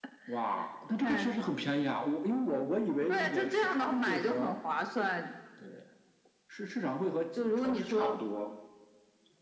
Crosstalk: present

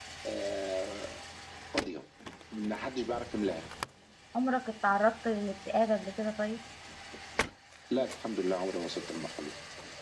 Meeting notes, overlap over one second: none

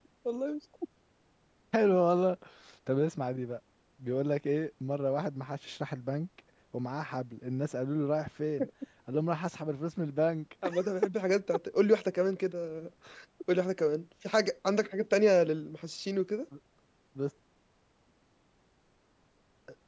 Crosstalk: none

